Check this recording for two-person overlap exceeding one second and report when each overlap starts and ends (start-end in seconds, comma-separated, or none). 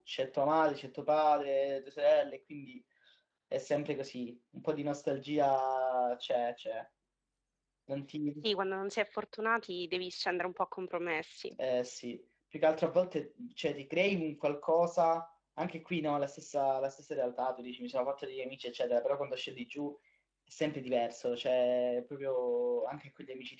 none